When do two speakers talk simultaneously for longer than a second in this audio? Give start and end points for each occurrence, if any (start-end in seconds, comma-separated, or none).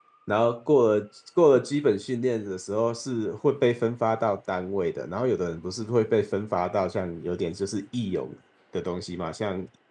none